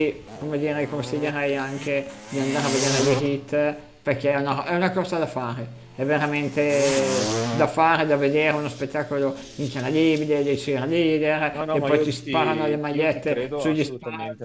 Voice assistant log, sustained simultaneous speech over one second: present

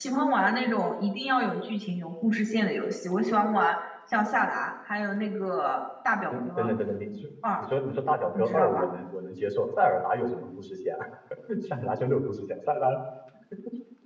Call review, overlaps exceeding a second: none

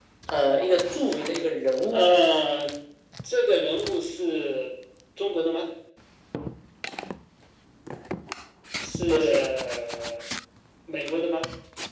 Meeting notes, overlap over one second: none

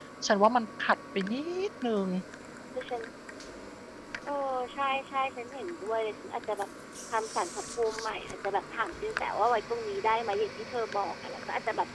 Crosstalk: none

